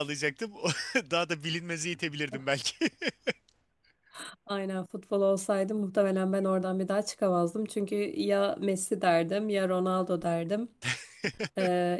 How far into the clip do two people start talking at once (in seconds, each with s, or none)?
none